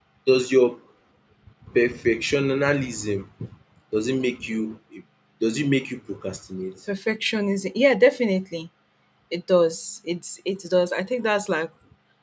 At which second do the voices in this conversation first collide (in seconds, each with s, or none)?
none